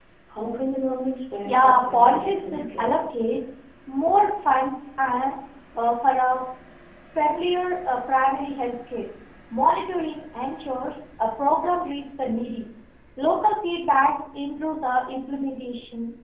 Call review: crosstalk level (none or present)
present